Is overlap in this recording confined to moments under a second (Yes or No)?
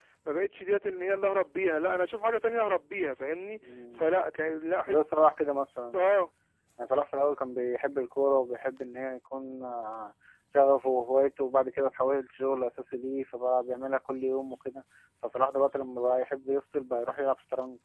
Yes